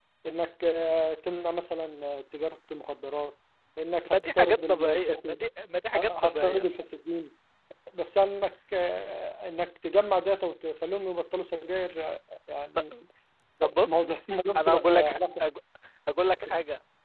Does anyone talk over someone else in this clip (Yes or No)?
Yes